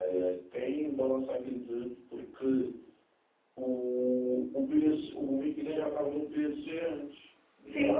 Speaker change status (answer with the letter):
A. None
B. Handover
B